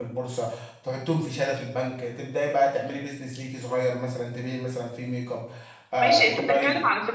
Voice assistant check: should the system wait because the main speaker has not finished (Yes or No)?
No